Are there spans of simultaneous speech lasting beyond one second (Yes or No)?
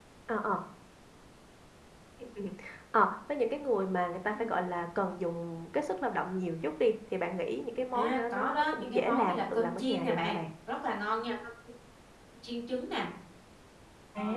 Yes